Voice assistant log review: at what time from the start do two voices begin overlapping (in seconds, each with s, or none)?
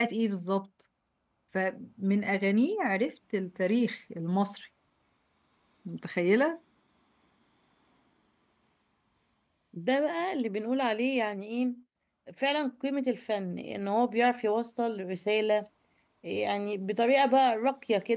none